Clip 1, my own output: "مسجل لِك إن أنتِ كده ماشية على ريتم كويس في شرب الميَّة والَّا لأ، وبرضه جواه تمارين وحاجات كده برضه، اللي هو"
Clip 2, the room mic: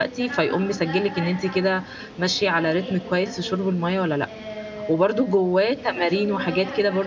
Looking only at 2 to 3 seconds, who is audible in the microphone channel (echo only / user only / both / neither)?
both